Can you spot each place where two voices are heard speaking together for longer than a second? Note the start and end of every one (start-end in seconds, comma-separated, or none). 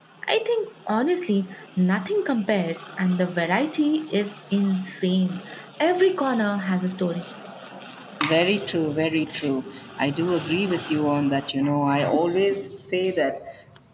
none